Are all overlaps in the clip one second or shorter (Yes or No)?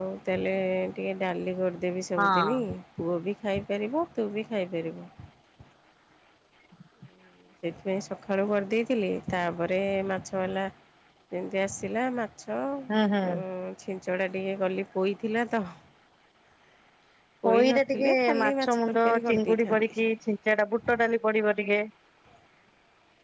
No